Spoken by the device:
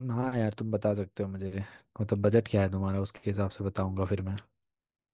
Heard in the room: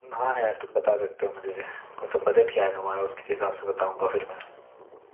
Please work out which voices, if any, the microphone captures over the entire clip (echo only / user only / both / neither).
echo only